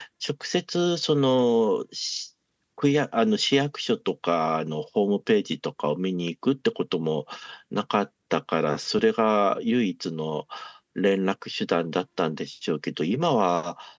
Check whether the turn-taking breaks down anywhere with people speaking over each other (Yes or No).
No